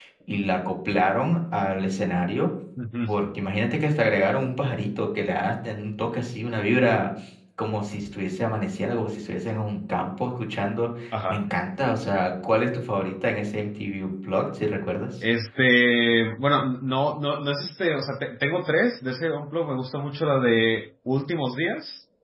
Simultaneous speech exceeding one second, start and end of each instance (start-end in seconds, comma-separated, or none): none